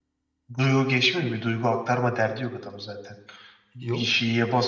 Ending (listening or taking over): listening